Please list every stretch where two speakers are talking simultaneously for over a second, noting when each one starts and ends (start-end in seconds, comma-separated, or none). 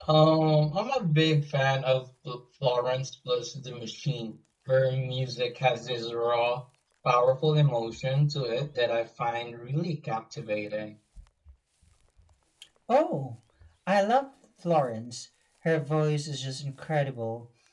none